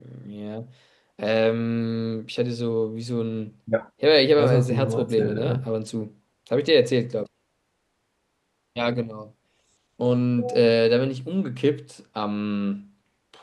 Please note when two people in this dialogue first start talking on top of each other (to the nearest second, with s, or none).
4 s